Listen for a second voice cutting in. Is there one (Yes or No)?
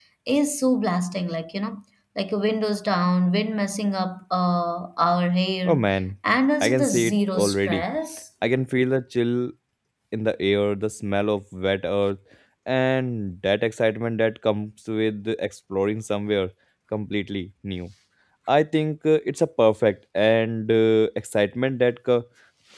Yes